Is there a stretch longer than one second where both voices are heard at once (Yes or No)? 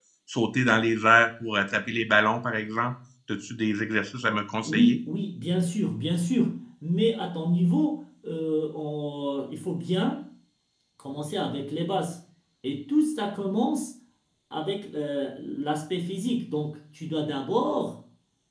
No